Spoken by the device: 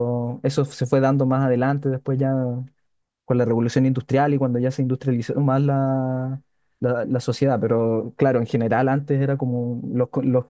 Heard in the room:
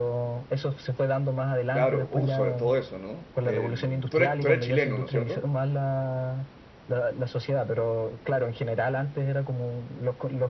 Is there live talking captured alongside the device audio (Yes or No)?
Yes